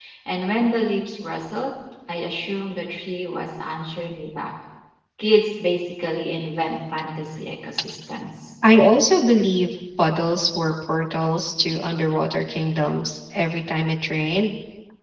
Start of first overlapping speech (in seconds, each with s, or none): none